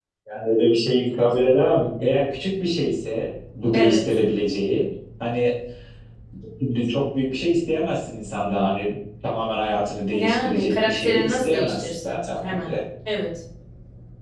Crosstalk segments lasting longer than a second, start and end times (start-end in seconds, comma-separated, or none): 10.1-12.7